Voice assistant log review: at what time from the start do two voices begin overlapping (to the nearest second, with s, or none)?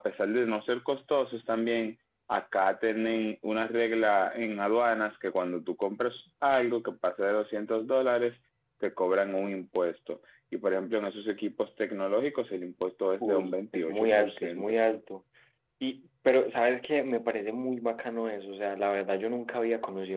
13 s